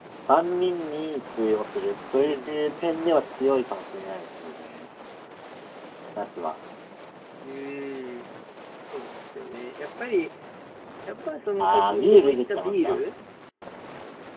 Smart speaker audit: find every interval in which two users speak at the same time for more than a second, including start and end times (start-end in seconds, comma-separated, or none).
11.6-13.0